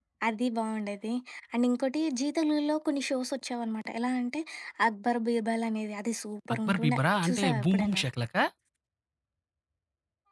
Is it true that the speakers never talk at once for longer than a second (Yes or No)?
No